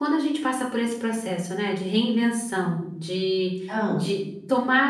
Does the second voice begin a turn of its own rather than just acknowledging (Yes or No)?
No